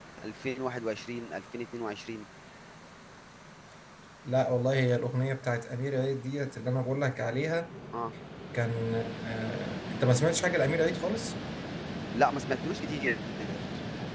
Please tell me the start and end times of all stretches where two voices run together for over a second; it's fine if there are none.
none

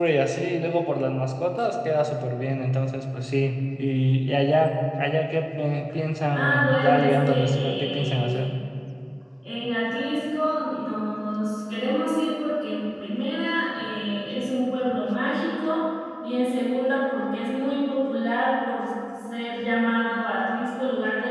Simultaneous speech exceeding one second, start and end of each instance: 6.3-8.4

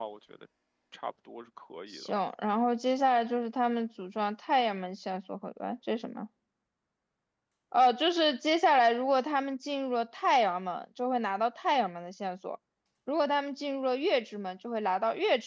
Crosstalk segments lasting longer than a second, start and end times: none

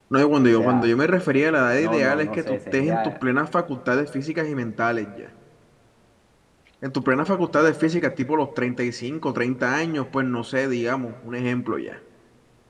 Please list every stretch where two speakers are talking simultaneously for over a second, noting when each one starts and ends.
1.8-3.1

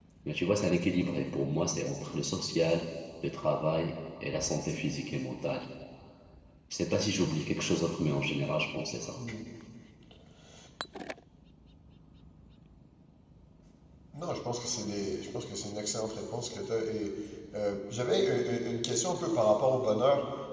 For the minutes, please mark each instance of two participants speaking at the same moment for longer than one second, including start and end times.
none

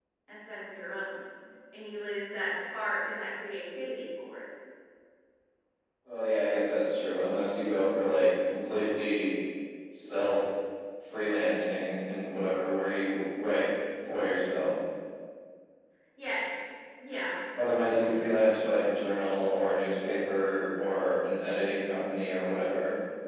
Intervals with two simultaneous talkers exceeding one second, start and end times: none

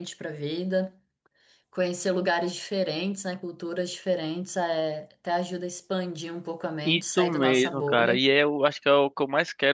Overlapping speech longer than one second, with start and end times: 6.8-8.2

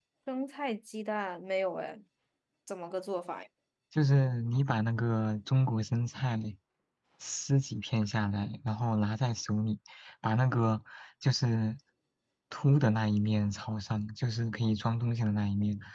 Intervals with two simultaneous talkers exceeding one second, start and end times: none

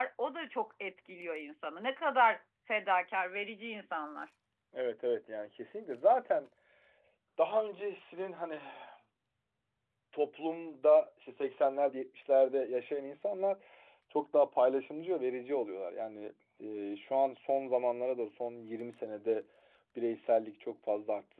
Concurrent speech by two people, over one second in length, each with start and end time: none

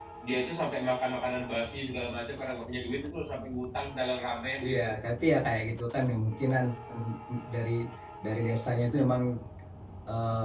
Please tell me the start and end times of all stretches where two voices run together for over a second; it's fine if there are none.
none

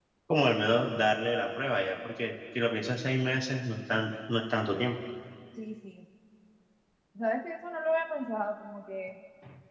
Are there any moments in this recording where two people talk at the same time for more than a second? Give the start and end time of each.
none

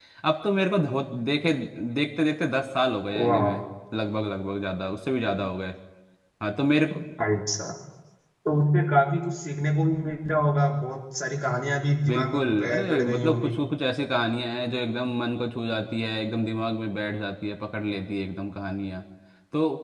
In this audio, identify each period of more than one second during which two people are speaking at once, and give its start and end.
12.1-13.5

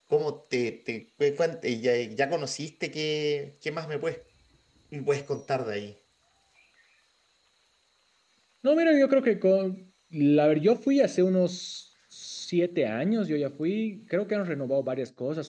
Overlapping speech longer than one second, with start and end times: none

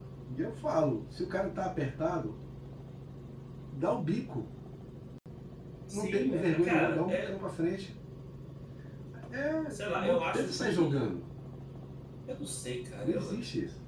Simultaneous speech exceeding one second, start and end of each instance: 5.9-7.3, 9.7-11.0

